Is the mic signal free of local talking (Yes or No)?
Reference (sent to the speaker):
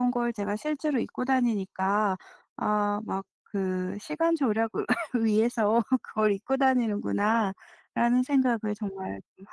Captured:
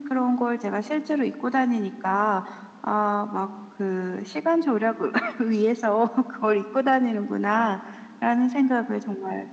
Yes